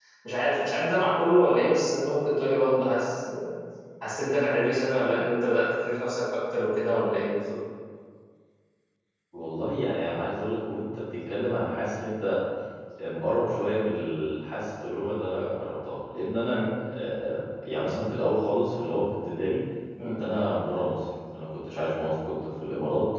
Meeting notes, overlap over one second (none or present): none